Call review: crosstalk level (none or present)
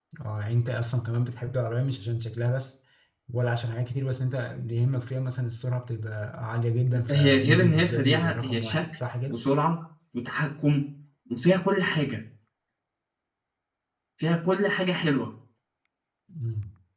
present